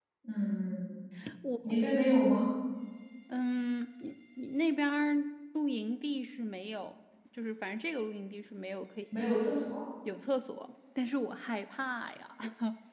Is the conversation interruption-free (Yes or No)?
Yes